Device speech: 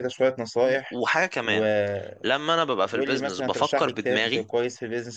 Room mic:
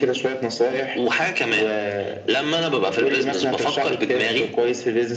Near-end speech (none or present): present